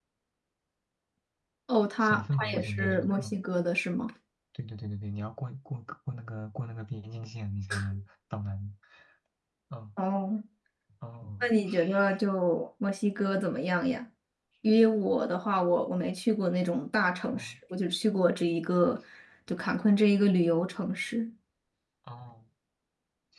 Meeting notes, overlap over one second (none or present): present